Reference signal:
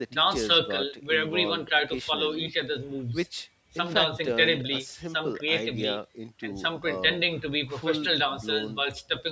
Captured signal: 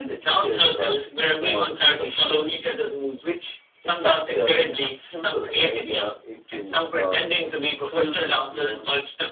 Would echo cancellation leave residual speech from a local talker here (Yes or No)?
No